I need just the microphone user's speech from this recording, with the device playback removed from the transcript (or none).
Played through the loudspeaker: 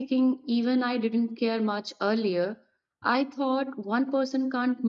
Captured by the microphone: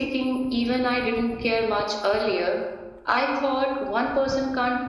none